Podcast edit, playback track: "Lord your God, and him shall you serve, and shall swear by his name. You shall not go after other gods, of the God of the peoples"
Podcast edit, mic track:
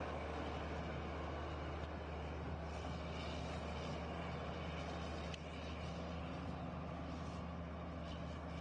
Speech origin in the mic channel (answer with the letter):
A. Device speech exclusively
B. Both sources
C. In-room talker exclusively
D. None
D